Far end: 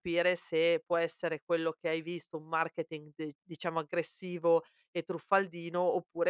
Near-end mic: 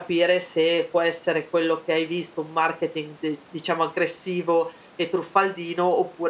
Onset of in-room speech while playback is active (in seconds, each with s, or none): none